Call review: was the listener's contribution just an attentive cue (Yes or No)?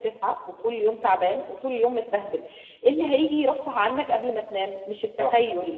Yes